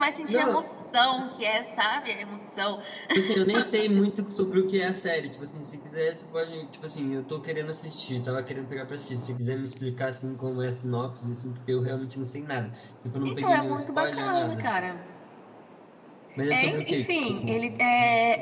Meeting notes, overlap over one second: present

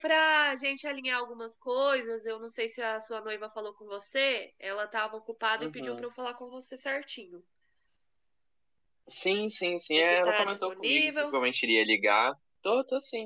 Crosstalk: present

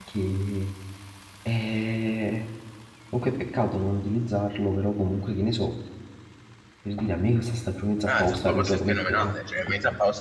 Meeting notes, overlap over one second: present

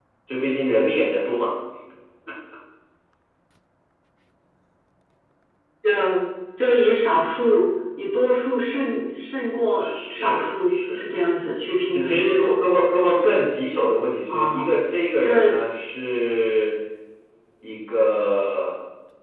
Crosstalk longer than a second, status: present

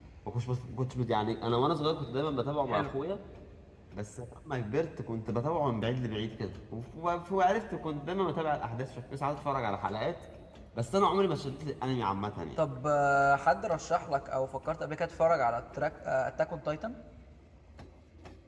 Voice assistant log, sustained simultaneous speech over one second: none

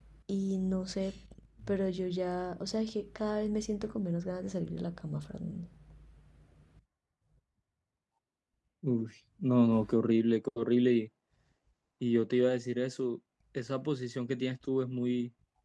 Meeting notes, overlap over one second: none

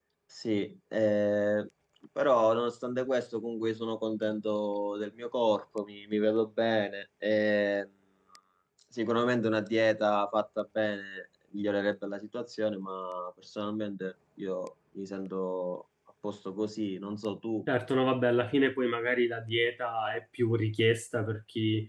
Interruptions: none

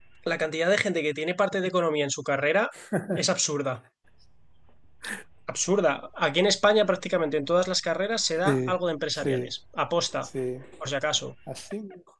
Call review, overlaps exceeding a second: none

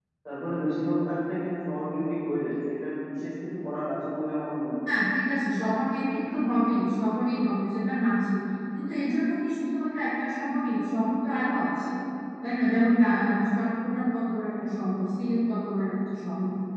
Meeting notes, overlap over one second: none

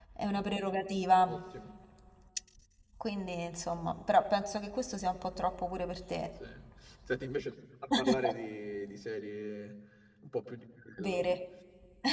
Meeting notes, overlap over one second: none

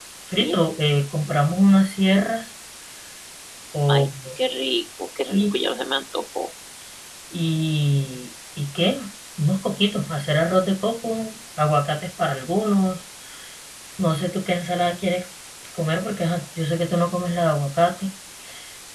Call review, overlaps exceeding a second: none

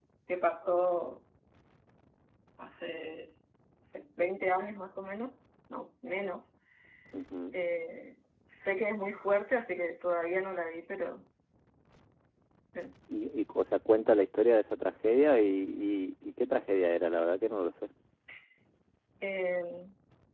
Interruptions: none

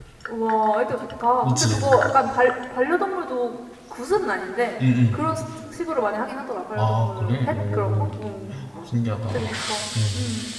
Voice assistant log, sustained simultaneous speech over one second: present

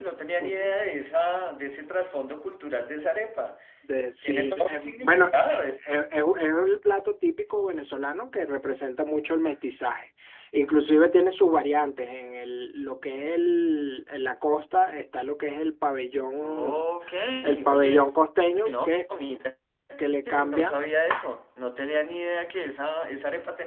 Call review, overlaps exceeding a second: present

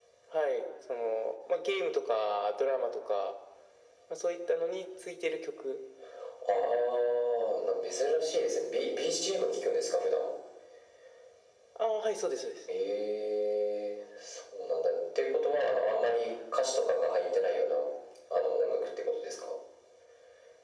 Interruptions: none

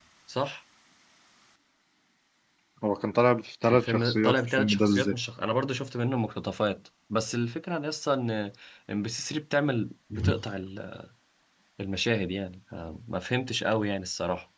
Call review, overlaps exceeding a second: present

